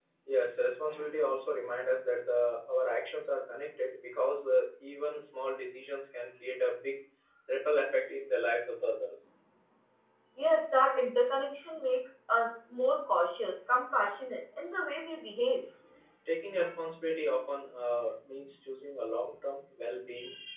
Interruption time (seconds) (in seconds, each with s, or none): none